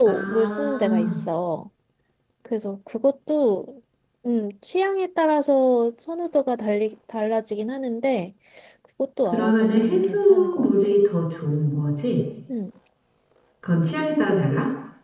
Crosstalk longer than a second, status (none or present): present